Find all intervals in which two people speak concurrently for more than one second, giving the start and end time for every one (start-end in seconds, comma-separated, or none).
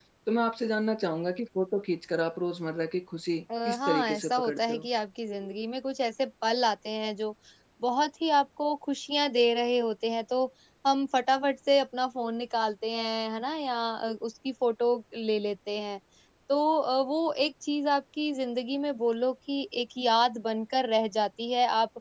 3.6-4.9